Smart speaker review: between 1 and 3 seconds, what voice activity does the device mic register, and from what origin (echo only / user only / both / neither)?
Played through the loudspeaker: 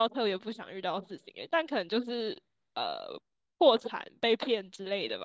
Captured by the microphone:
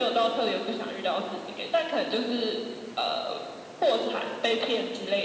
echo only